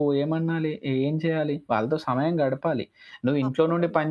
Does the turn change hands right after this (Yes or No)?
No